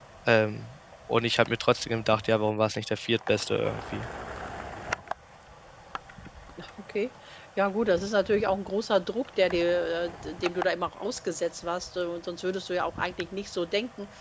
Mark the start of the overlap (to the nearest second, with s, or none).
none